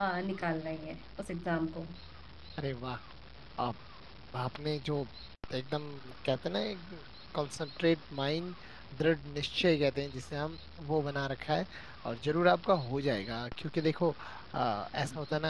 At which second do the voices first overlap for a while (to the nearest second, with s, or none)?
none